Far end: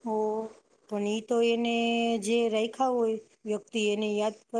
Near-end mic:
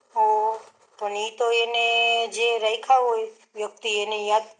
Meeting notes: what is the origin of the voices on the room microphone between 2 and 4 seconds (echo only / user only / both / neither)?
echo only